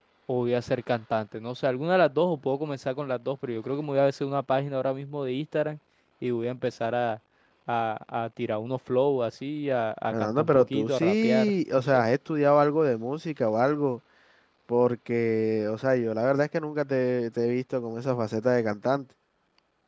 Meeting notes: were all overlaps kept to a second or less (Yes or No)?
No